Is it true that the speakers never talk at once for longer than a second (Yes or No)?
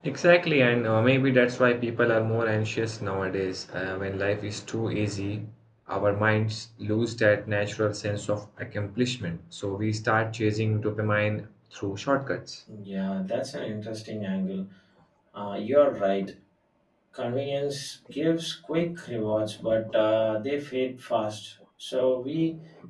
Yes